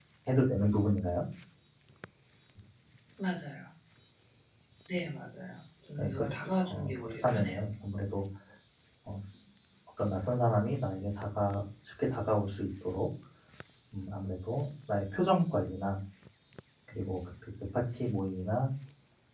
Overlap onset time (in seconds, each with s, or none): 6.0 s